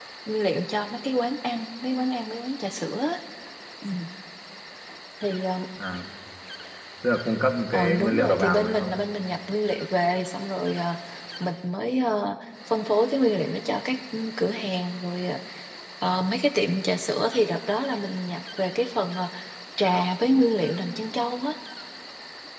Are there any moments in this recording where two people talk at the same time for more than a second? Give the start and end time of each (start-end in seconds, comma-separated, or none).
7.7-8.9